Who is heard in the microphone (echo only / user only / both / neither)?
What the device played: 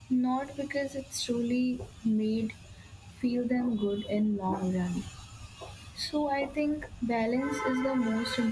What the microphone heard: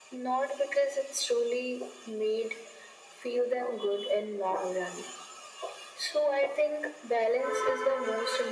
echo only